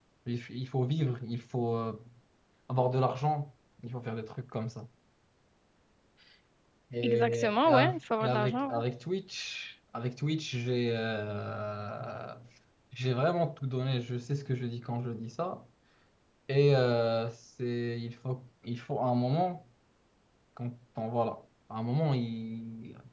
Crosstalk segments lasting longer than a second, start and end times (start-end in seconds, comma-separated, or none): 7.0-8.8